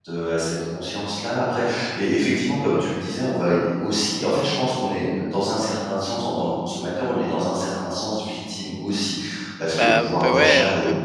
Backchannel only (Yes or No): No